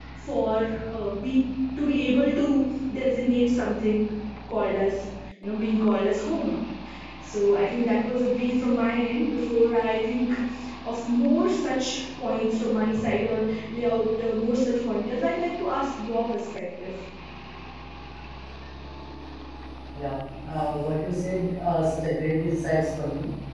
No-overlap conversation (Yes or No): Yes